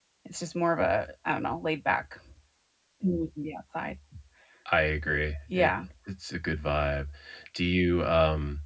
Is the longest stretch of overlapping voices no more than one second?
Yes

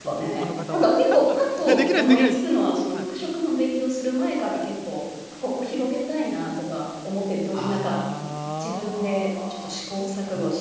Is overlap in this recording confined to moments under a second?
No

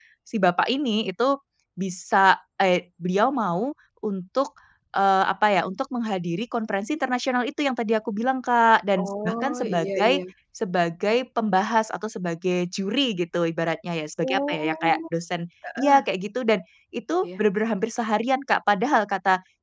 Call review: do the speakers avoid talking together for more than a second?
No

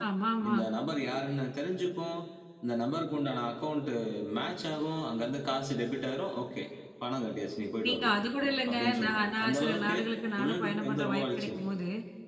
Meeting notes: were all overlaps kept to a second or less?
No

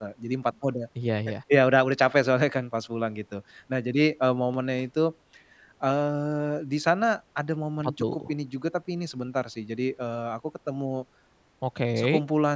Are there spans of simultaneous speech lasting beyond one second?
No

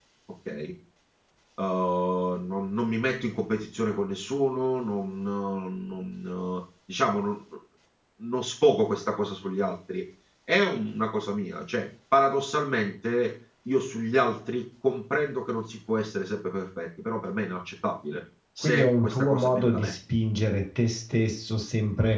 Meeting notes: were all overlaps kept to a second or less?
No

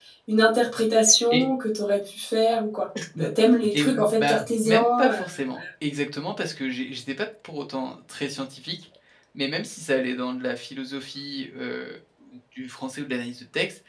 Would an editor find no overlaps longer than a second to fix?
No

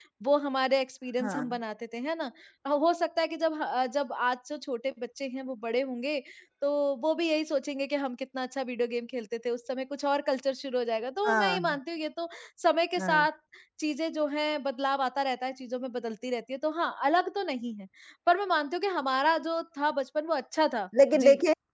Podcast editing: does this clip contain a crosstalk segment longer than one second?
No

